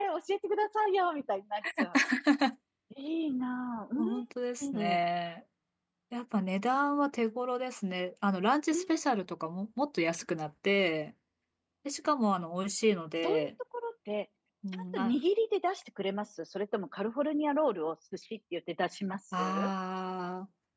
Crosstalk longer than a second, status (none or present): none